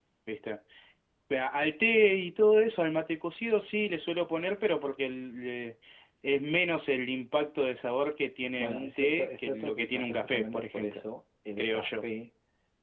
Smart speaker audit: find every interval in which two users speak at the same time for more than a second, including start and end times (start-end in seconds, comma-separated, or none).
8.6-11.0